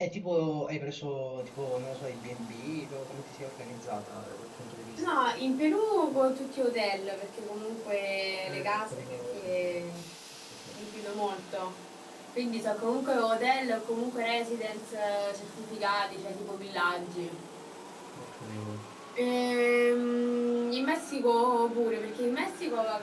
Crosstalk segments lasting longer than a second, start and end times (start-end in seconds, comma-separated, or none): 8.4-9.7